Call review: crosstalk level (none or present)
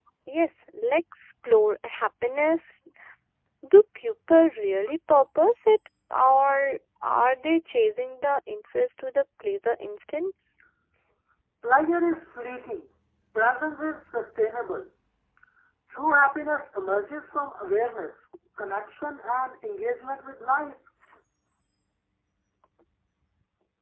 none